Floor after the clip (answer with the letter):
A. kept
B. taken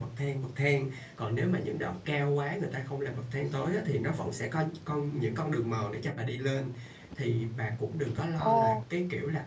A